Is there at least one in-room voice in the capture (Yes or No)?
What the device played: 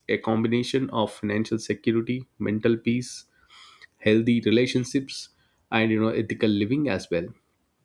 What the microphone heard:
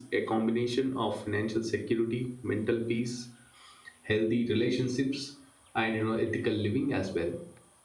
No